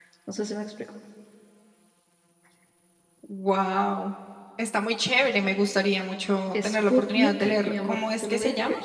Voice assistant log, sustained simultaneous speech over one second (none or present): present